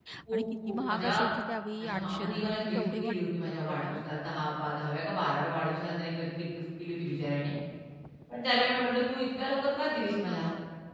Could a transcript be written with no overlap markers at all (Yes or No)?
No